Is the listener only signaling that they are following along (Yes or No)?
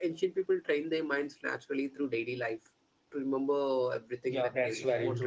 No